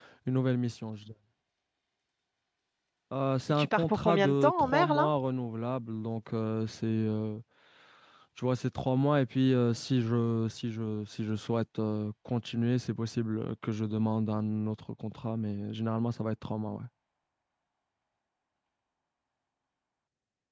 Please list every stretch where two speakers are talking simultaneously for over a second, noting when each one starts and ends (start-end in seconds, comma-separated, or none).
3.5-5.1